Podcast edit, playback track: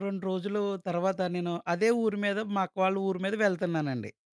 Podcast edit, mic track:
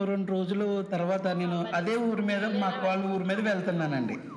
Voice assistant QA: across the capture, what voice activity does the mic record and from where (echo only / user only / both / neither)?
both